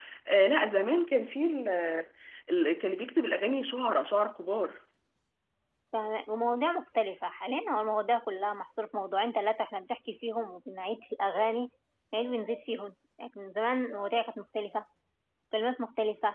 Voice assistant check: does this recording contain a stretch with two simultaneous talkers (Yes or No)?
No